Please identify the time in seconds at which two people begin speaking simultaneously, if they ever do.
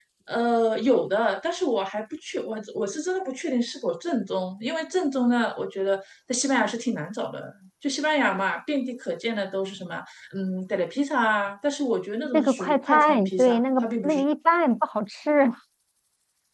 12.3 s

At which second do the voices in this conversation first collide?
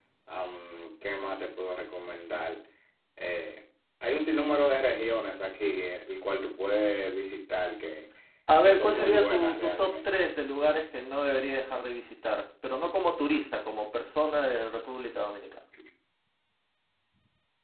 8.6 s

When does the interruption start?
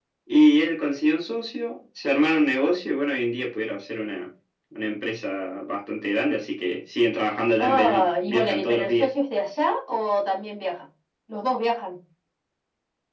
7.6 s

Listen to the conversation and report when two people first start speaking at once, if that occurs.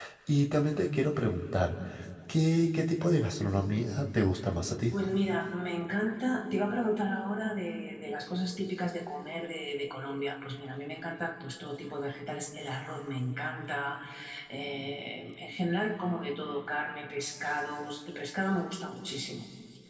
none

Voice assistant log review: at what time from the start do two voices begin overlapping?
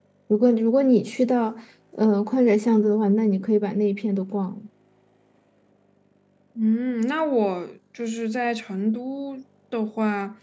none

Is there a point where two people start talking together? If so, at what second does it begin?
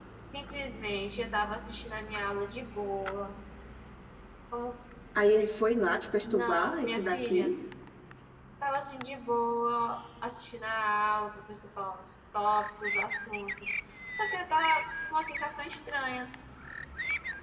6.2 s

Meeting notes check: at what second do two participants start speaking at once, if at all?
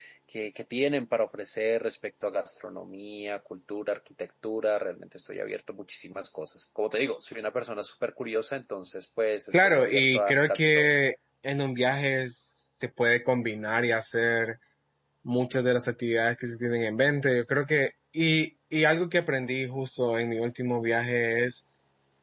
9.5 s

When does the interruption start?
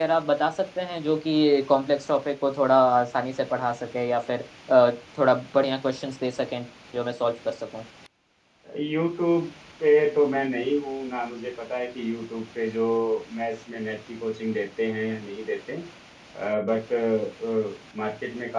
none

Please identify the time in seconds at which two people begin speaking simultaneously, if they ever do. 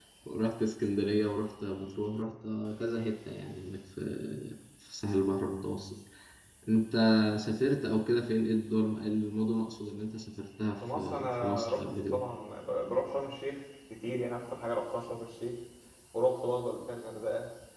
10.7 s

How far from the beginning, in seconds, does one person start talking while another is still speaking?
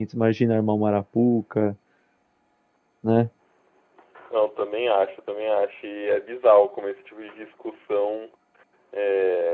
none

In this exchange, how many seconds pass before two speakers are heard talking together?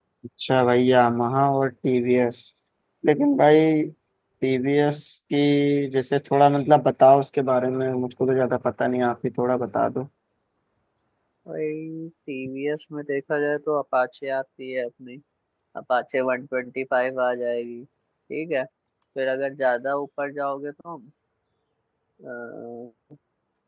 none

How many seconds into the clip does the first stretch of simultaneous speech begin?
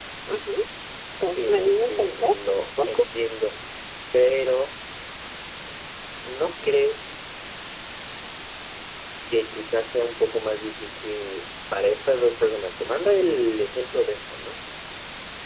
1.4 s

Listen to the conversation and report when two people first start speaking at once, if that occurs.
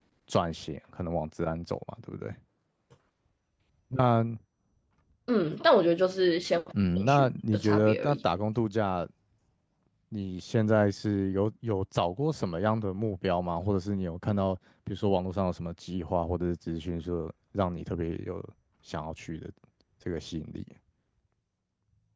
6.7 s

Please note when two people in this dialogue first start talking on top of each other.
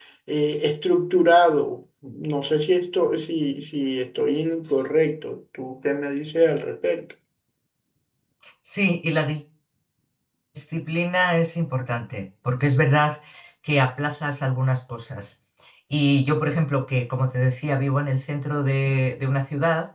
none

